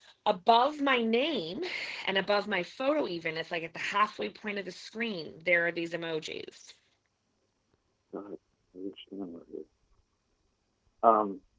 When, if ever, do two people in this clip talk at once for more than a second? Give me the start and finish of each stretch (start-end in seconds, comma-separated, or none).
none